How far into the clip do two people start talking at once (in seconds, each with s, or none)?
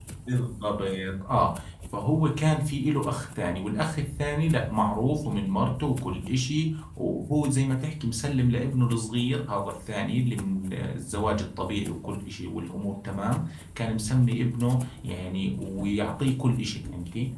none